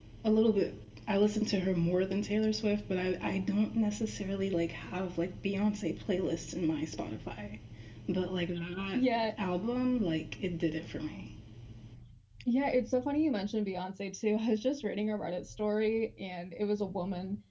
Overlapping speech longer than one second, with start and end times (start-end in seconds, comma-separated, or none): none